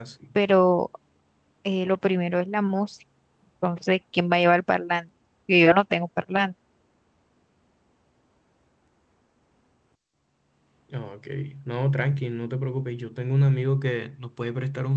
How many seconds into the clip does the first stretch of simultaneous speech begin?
none

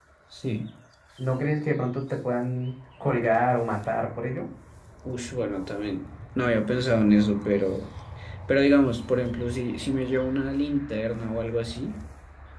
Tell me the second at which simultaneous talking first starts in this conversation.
none

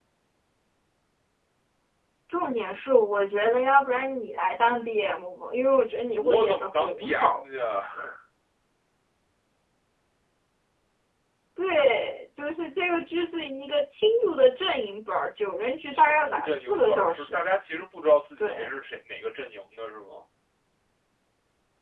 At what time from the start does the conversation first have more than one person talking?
6.2 s

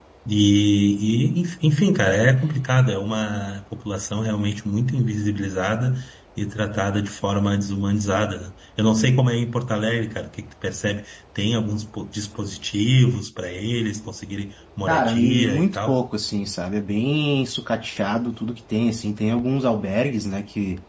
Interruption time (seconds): 14.9 s

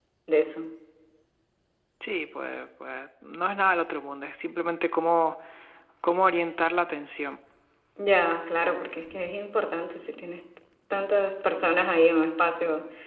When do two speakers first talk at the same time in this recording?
none

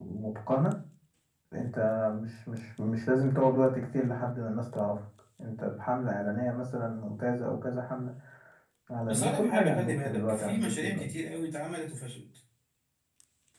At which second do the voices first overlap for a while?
9.1 s

